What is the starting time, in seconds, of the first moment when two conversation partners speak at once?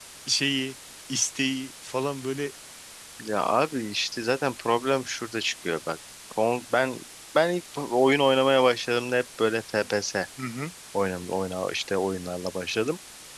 none

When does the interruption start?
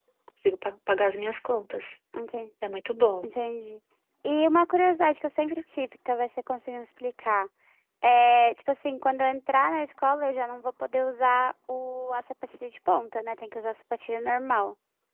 none

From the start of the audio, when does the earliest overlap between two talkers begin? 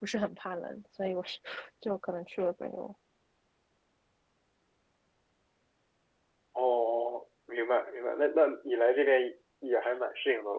none

